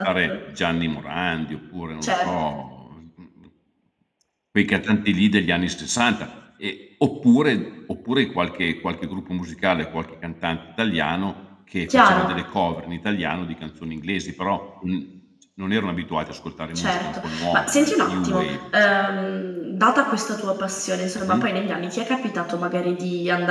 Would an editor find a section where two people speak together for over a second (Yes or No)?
Yes